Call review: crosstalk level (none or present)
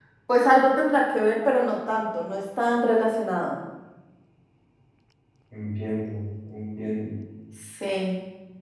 none